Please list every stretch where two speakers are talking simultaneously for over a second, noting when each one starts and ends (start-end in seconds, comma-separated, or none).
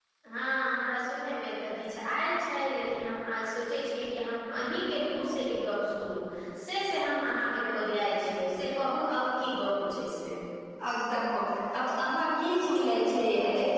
none